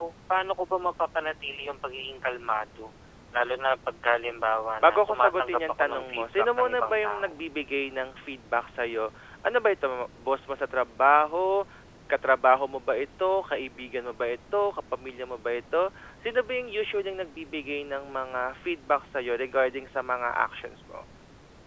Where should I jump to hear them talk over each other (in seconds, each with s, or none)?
4.8 s